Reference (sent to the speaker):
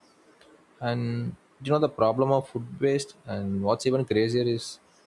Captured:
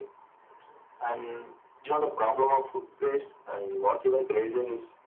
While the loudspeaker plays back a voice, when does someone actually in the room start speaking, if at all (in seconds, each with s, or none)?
none